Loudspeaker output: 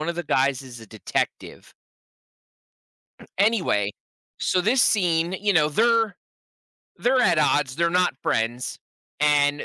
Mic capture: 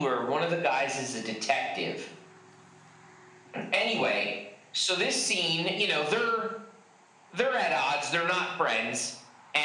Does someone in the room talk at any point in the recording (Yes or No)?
No